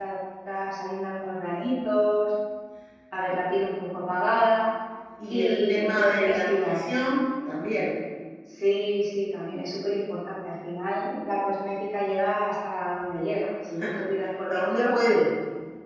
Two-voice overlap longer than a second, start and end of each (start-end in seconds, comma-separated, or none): 5.3-6.8